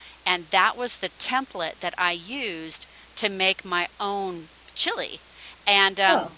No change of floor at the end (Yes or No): Yes